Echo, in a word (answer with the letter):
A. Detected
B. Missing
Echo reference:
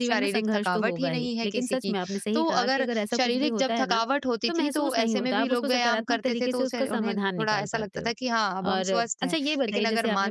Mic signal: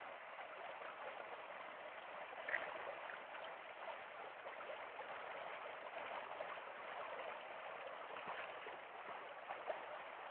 B